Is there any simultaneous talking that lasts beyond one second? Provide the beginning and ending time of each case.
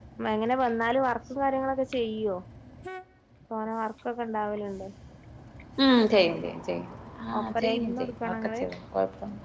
7.4-8.6

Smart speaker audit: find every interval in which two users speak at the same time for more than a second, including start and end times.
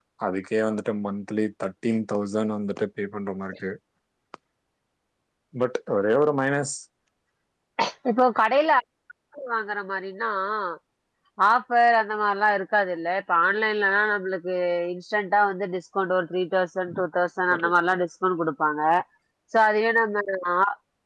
none

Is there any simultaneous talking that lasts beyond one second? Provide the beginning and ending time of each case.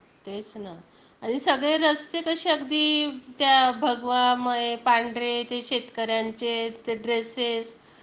none

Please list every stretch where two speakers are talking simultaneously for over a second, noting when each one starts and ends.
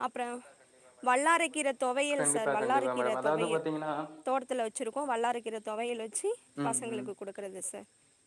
2.2-3.6

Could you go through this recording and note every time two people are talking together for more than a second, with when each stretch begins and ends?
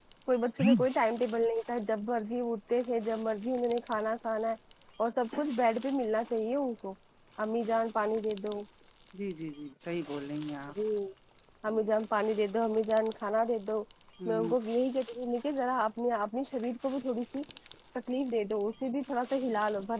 none

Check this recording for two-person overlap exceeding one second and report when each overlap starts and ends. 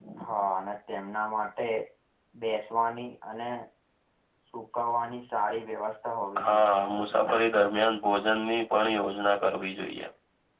none

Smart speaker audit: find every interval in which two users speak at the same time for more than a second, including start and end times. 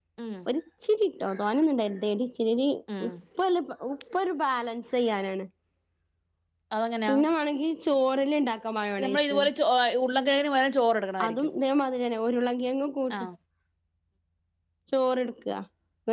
none

